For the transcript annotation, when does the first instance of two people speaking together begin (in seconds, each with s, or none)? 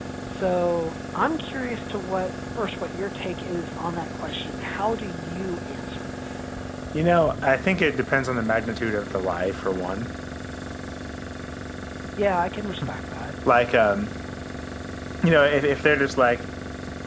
none